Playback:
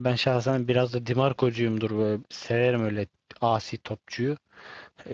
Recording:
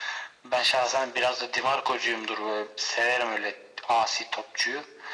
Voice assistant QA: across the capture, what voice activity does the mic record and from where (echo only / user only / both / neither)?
echo only